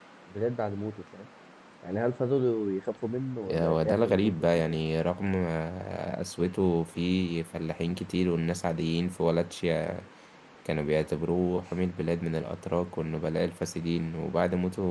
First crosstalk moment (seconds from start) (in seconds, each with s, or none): 3.5 s